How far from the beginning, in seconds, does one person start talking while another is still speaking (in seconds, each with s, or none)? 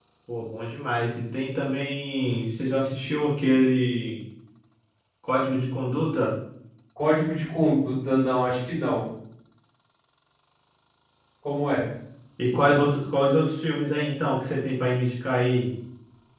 none